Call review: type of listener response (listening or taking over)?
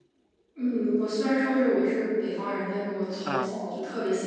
listening